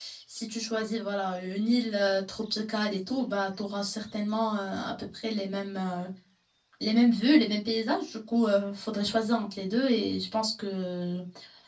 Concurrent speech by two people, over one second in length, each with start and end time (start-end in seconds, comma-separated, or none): none